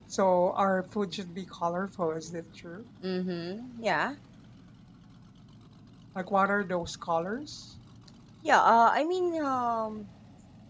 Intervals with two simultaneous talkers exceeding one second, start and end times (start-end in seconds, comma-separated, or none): none